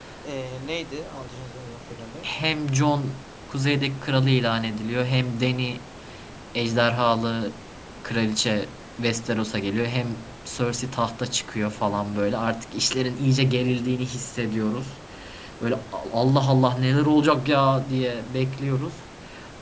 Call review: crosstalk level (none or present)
none